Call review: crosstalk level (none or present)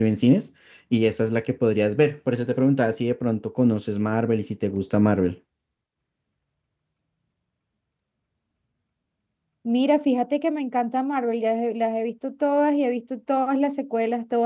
none